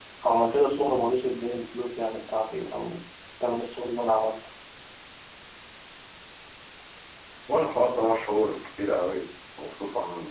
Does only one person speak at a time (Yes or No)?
Yes